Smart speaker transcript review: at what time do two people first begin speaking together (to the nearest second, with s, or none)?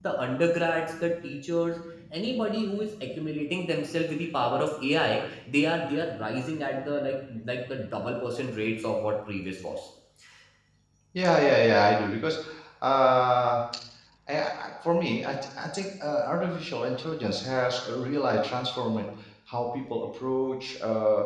none